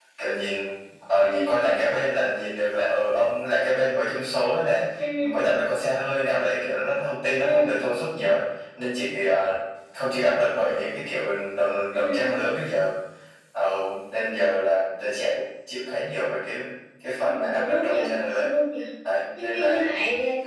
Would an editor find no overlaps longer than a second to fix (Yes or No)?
No